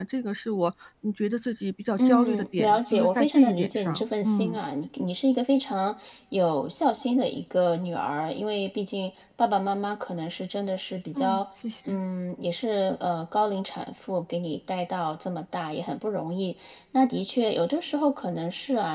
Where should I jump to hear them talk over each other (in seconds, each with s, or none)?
2.0 s